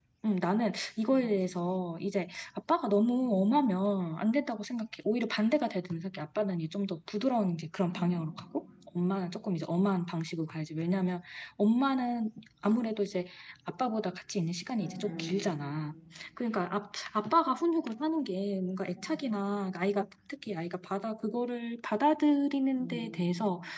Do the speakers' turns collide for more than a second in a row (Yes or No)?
No